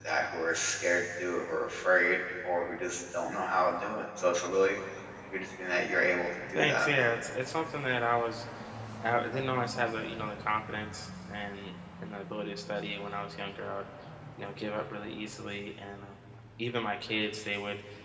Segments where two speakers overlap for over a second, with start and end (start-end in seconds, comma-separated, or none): none